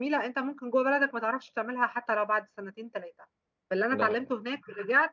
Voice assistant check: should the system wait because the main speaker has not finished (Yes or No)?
Yes